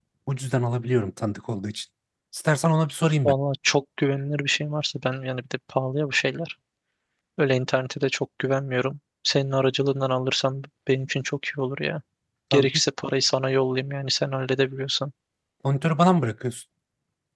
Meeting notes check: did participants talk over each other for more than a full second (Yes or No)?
No